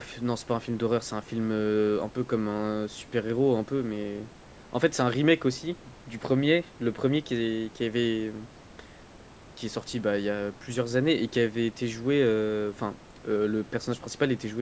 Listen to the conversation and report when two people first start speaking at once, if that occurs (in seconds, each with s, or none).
none